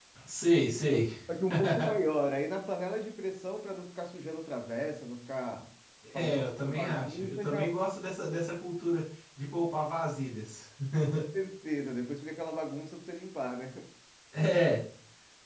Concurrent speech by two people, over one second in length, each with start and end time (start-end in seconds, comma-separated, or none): 6.1-7.6